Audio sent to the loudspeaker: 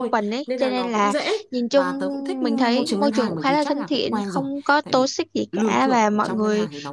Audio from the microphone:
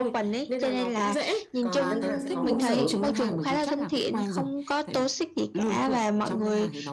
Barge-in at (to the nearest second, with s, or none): 2 s